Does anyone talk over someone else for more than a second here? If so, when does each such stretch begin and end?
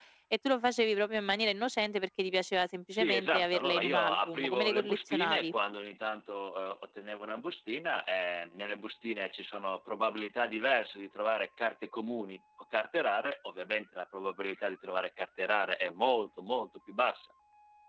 2.9-5.5

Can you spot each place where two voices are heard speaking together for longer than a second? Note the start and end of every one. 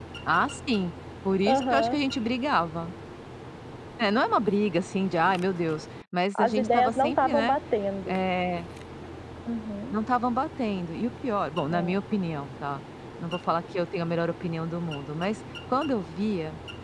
6.4-7.6

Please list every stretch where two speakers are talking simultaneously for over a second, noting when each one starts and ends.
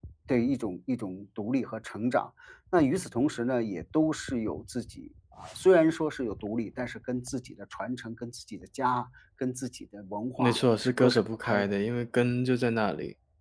10.4-11.7

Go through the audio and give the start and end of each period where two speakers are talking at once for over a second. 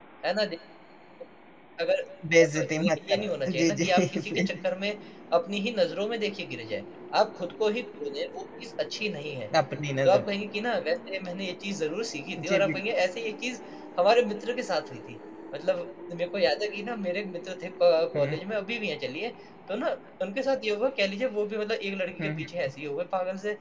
2.4-4.5

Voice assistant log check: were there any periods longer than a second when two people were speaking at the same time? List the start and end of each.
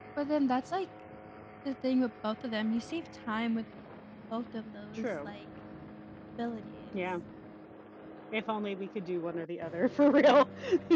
none

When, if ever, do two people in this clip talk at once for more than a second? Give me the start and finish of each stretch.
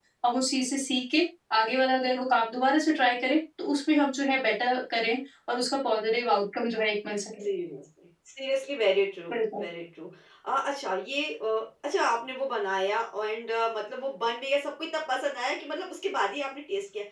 none

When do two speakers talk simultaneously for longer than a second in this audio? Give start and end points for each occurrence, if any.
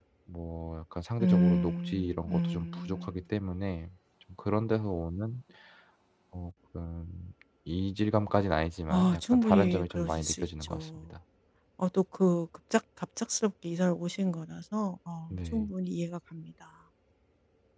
1.2-3.1, 8.9-11.0

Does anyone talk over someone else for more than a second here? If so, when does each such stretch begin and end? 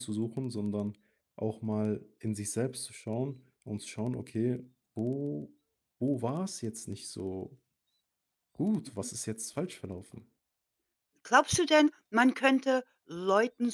none

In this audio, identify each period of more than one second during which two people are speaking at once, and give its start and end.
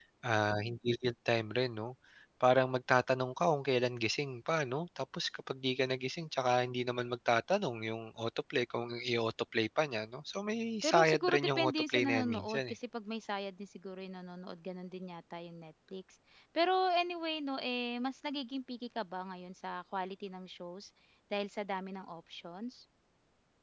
10.8-12.8

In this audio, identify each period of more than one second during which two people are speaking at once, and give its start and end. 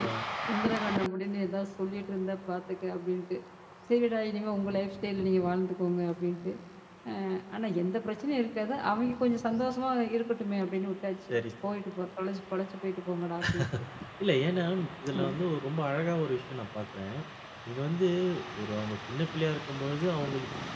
none

